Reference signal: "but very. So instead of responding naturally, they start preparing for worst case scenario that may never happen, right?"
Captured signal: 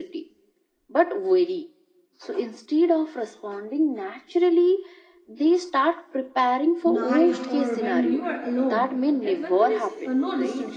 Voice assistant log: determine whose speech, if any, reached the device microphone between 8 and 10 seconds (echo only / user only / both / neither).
both